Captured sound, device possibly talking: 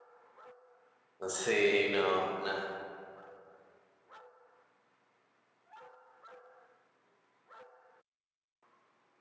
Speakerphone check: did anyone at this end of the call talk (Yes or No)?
Yes